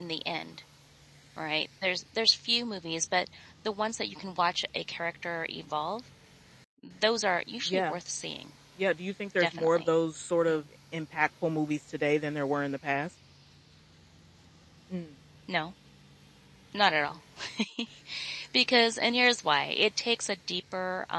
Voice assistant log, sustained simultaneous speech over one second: none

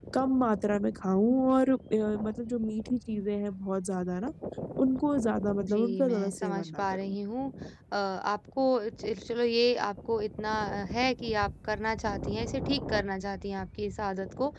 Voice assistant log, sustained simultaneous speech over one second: present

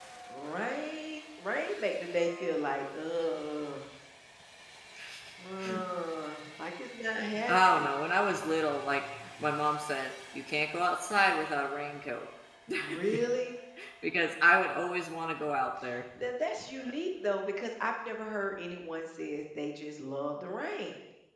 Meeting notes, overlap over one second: none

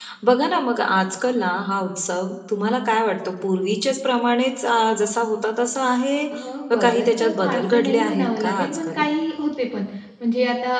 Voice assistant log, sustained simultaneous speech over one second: present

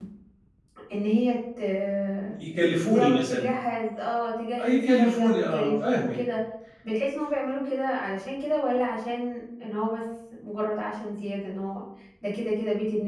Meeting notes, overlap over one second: present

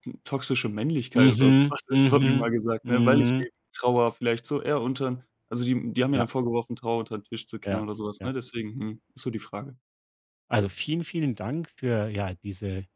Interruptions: present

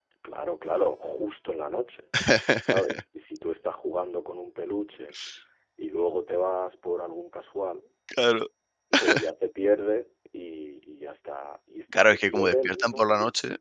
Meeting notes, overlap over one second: present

